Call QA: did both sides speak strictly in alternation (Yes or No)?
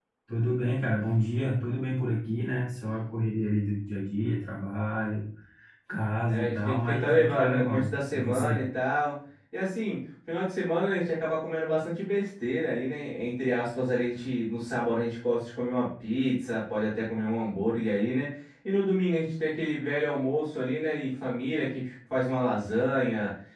No